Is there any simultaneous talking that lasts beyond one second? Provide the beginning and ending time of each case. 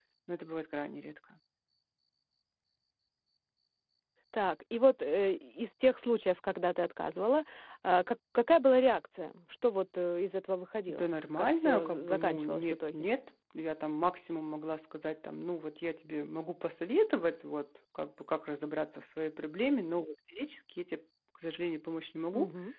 10.9-13.1

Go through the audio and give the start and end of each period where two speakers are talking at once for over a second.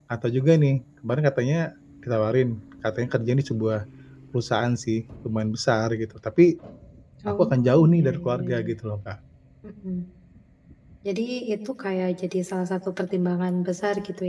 7.3-8.7

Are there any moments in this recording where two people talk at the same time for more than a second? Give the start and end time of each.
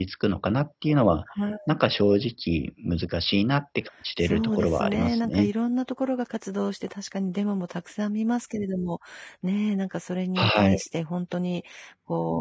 4.2-5.5

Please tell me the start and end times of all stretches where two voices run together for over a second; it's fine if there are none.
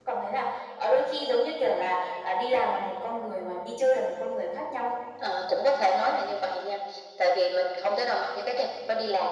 none

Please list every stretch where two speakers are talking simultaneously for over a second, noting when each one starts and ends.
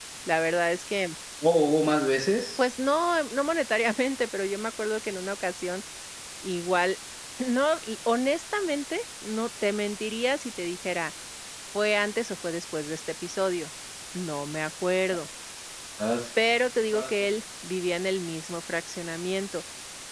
none

